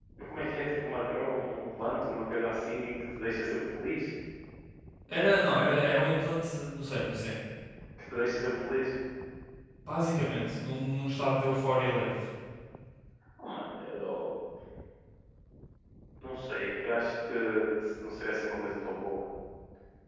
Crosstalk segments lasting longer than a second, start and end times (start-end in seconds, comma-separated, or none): none